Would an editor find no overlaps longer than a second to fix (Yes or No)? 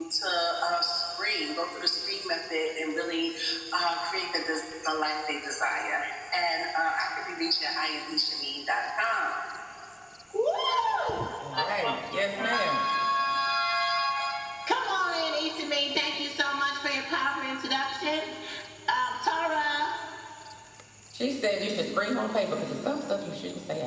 Yes